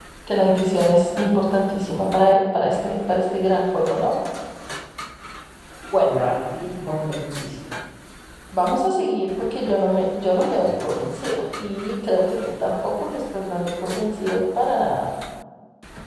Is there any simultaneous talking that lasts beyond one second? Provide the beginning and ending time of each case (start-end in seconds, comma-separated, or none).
none